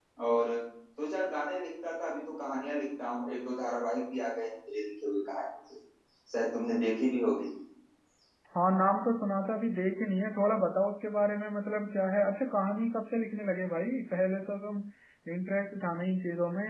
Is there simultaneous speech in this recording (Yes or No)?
No